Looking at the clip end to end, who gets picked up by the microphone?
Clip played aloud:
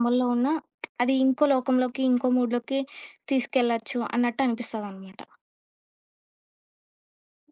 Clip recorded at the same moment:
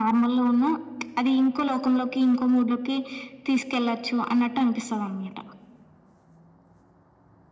echo only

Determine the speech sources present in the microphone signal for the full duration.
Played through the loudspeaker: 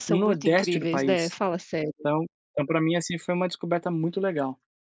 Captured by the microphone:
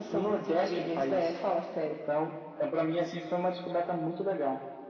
echo only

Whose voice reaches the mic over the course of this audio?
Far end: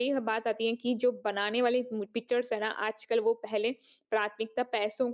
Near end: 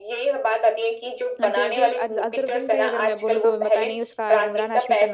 both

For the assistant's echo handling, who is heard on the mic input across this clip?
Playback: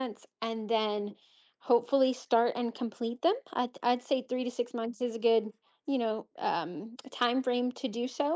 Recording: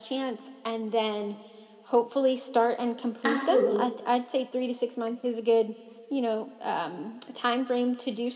both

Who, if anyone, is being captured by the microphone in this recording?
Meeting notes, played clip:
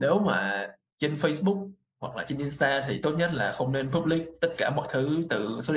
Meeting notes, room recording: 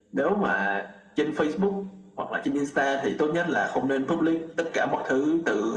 echo only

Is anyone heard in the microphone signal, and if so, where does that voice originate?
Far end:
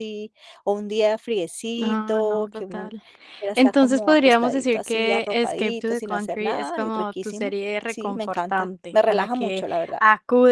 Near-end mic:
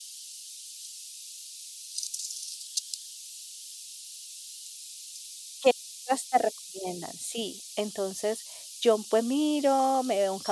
user only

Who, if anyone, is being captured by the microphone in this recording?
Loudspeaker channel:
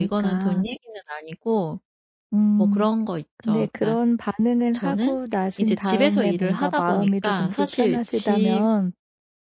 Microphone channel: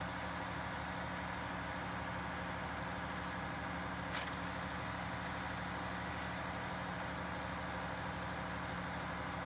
neither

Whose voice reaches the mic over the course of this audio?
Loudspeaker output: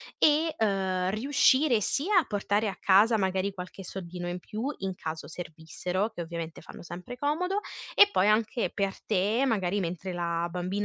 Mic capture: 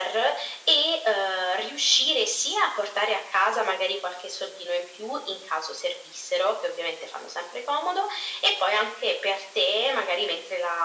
echo only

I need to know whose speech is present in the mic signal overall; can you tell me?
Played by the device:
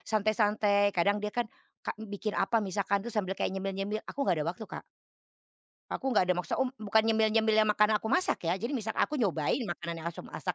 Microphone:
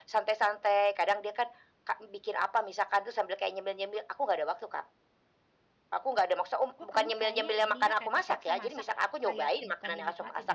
both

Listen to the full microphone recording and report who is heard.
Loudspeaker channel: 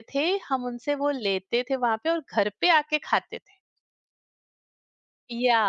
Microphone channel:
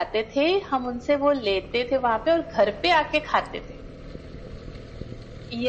echo only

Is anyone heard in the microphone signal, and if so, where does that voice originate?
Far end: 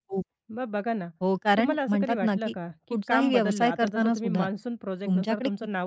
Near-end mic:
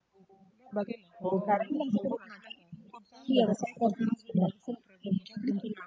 both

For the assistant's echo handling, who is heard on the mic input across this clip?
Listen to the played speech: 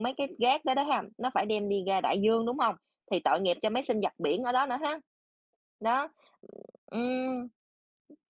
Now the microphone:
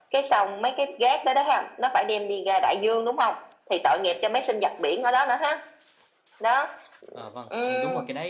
both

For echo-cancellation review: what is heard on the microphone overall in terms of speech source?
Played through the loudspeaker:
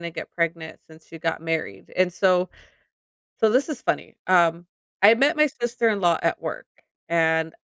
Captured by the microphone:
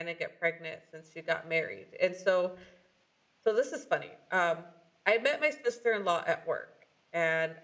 echo only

